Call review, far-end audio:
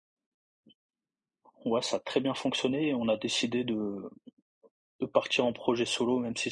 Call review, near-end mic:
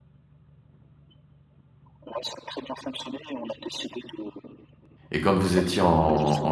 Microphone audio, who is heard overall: both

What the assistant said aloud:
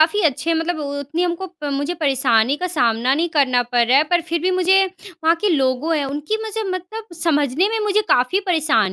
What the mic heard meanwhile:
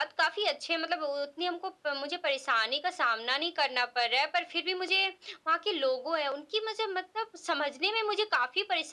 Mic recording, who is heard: echo only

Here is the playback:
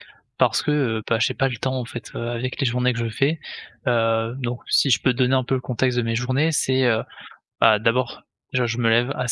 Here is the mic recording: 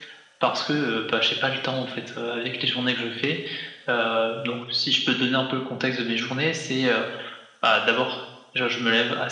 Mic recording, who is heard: echo only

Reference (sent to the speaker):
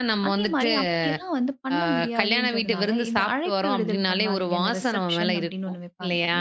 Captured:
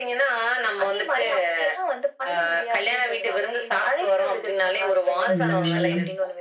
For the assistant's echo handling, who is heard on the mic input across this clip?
both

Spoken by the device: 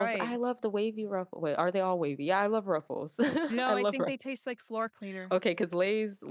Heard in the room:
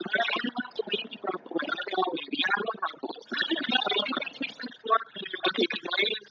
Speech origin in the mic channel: echo only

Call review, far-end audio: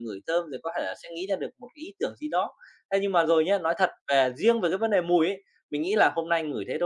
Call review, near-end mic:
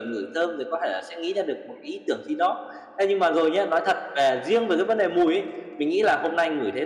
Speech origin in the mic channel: echo only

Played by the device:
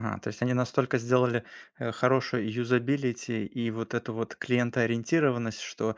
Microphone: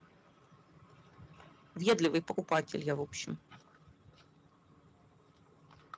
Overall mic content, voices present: user only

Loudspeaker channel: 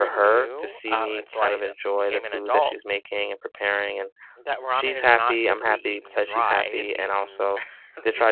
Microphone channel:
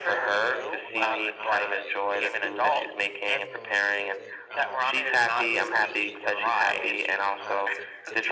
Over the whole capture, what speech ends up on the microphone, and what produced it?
both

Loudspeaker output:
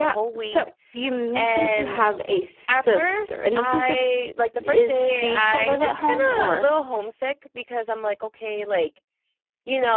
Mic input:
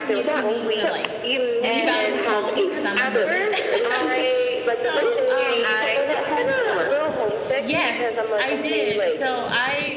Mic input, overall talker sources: both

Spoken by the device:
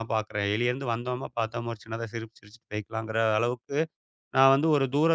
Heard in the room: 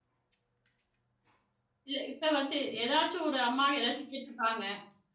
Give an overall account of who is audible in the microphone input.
user only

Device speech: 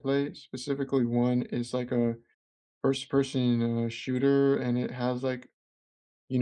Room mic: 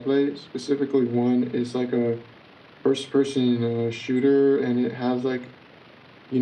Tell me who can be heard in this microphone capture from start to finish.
echo only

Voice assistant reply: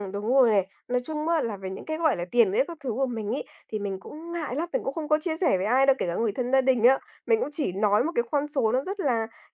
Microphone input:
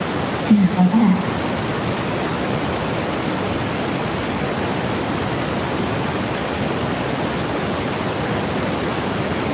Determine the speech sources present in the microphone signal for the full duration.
user only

